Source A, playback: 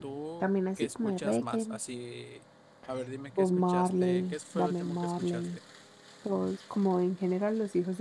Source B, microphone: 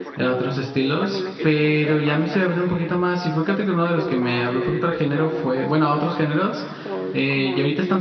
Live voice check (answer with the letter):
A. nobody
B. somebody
B